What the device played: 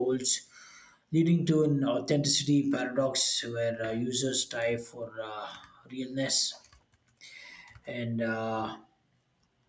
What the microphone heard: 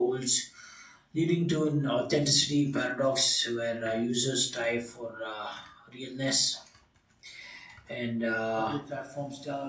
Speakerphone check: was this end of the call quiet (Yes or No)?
No